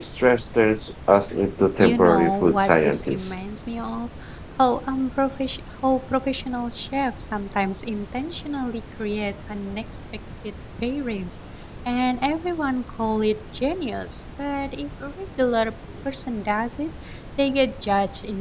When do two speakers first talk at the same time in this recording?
2 s

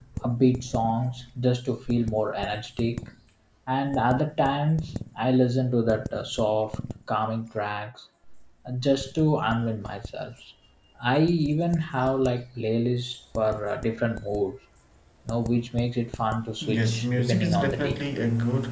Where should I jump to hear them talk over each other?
17 s

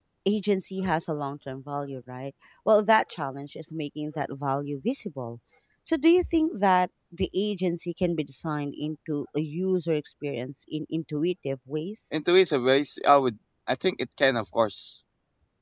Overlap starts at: none

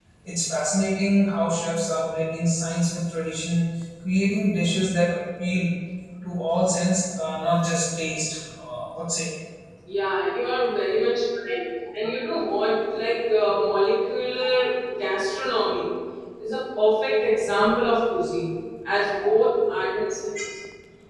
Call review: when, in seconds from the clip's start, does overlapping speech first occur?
none

